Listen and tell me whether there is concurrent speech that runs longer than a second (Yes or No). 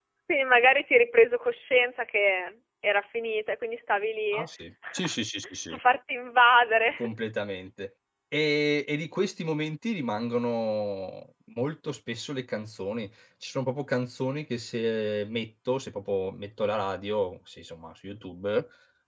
No